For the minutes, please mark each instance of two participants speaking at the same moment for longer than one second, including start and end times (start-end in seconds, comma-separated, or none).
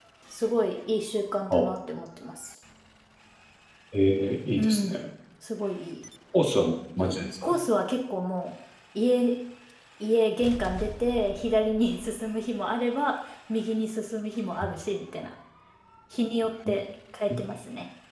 none